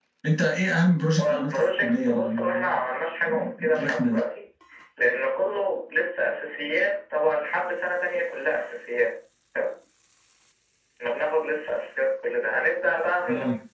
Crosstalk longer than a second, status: present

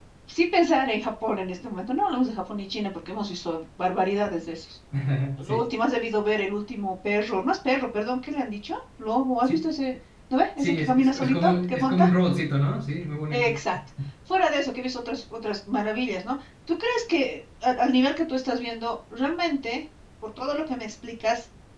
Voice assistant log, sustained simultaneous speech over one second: present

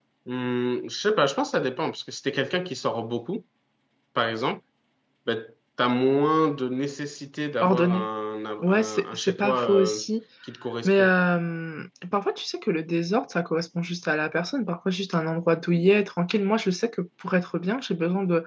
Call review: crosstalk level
present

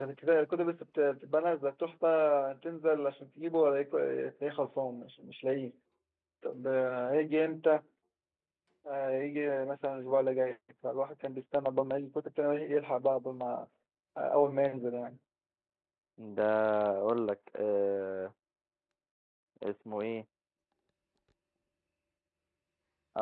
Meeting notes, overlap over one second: none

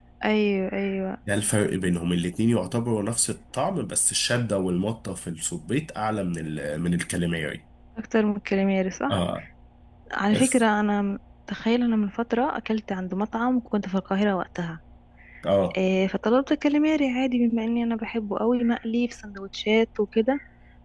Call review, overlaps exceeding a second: none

